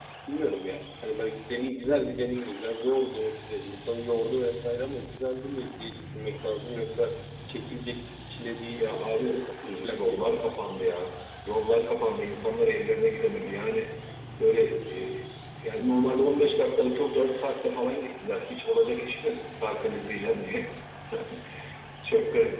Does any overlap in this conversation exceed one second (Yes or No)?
Yes